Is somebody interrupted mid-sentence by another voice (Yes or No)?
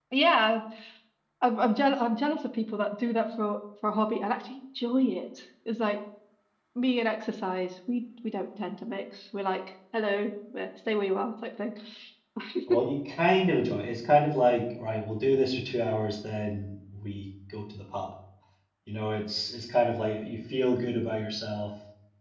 No